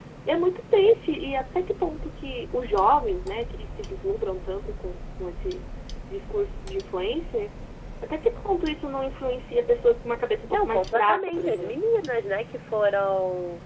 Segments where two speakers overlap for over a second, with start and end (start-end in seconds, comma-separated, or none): 10.5-11.8